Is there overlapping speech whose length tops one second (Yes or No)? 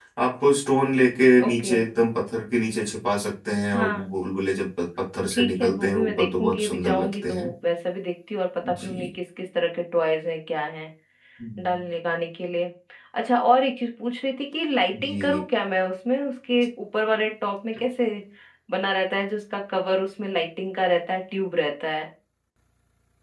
Yes